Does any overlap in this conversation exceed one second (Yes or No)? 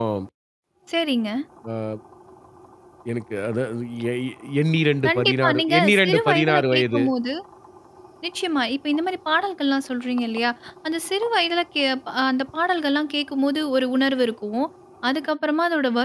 Yes